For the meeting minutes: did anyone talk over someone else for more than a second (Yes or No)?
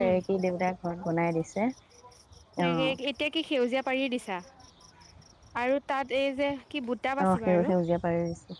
No